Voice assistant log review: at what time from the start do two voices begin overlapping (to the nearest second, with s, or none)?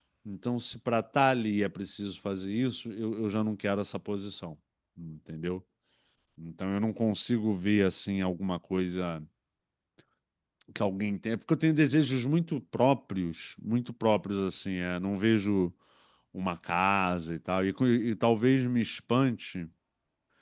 none